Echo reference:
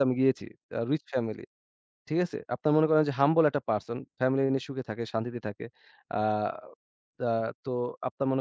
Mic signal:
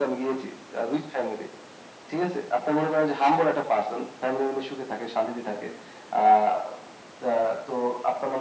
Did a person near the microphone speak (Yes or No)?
No